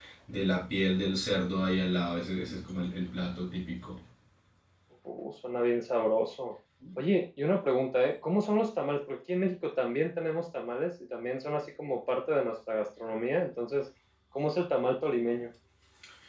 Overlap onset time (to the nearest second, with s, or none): none